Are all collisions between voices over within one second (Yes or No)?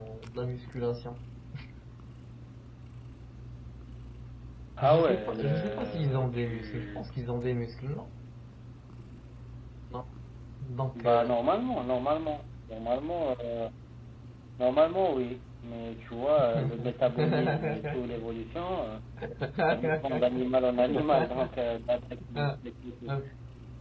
No